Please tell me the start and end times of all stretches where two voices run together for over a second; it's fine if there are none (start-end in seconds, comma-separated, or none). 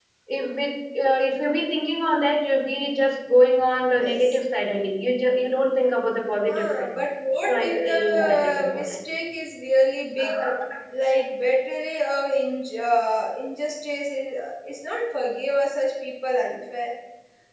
7.5-8.9